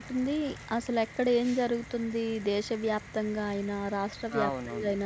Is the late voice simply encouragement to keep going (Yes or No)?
Yes